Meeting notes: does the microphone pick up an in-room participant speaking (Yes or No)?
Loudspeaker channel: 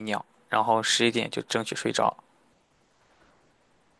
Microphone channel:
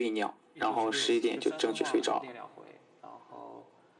Yes